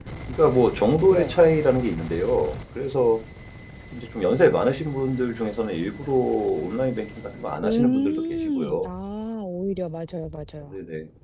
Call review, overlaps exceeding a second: present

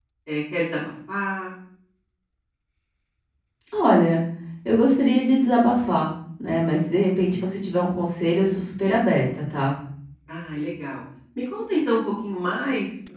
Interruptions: none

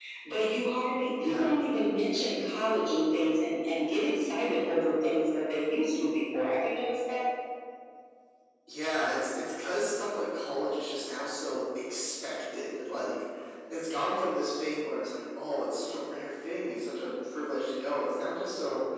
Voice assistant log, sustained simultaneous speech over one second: none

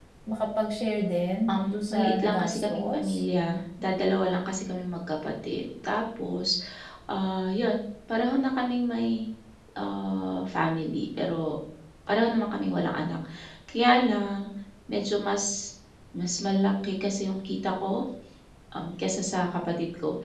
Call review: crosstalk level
present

